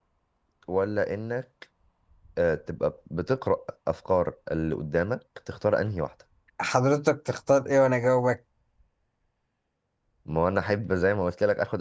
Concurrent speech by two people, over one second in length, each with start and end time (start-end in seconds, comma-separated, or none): none